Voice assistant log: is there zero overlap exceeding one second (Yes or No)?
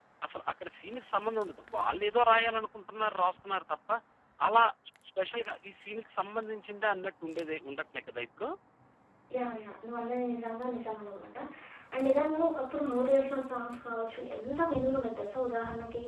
Yes